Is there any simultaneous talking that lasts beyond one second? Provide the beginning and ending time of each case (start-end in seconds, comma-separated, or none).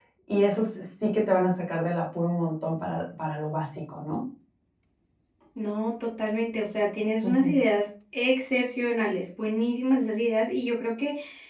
none